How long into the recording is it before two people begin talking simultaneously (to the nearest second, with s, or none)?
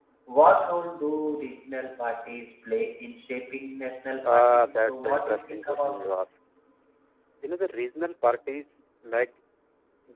4 s